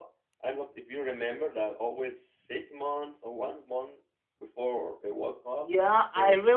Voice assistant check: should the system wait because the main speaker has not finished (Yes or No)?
No